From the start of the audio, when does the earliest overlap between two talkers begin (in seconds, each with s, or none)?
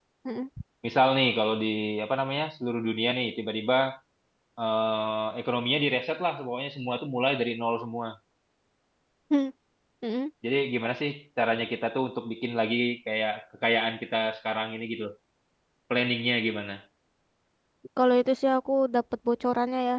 none